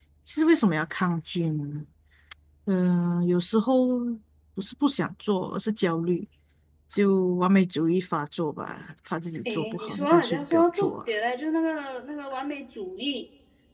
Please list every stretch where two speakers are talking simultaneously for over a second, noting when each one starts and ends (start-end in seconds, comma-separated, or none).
9.4-11.0